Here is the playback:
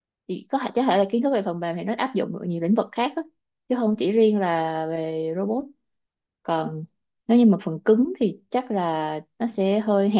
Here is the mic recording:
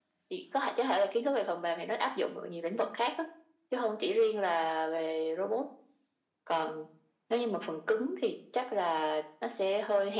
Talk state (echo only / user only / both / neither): echo only